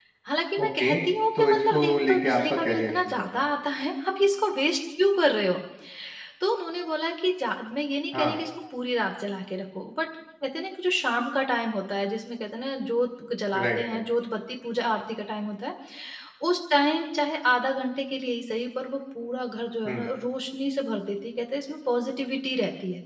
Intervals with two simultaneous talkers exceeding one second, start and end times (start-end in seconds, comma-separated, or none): 1.4-3.4